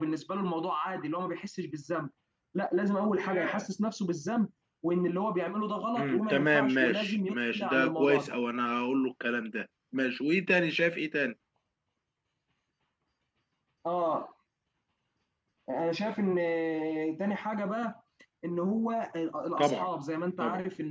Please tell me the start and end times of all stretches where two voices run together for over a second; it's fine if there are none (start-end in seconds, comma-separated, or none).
6.0-8.3